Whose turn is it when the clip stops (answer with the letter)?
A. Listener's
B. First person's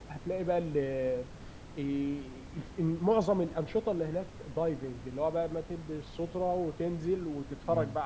B